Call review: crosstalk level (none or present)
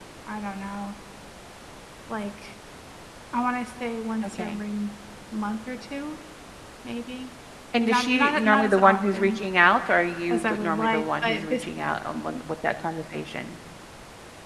present